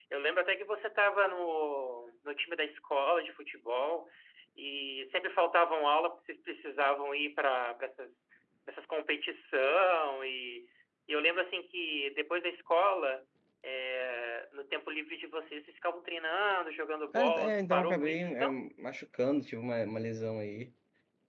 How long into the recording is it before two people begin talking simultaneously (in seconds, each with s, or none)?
17.1 s